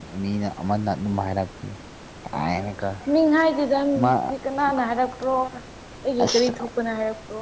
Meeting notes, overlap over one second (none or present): none